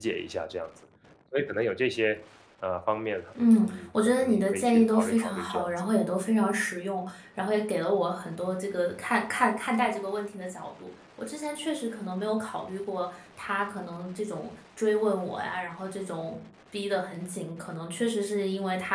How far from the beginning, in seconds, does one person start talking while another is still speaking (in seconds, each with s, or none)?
3.7 s